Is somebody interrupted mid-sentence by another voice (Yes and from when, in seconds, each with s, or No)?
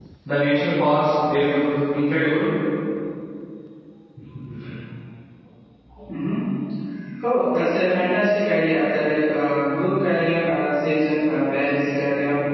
No